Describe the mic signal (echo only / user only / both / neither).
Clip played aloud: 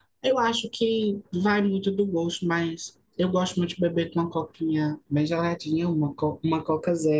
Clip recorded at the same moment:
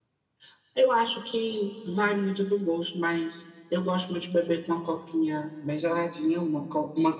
echo only